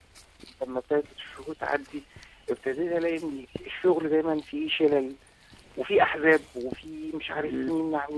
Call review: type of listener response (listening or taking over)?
taking over